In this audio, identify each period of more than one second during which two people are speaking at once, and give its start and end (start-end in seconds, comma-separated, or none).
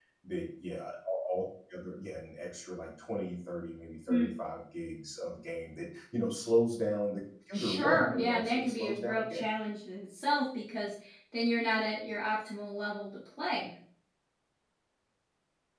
7.5-9.4